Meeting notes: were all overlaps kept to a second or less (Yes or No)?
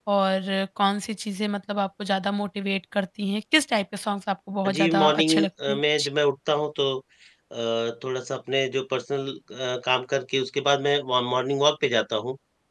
No